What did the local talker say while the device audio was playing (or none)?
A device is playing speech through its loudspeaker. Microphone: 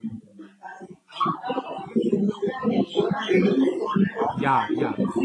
Yeah, yeah.